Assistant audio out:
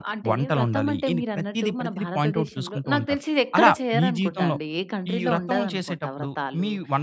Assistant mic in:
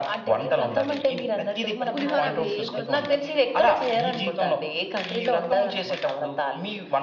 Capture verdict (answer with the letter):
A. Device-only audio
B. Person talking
B